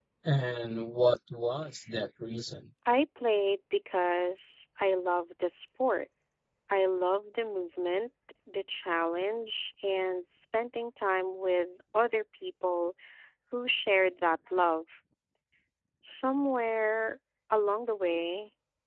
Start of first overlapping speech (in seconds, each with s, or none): none